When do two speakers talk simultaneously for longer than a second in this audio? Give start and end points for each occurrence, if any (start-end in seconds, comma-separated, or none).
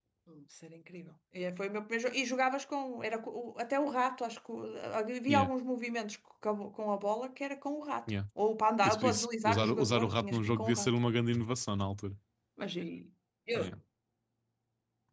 8.8-10.9